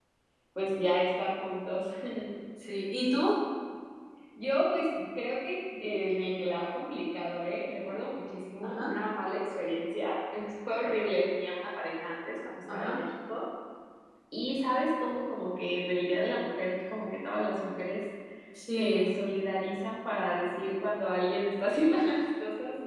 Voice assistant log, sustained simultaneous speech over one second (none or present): none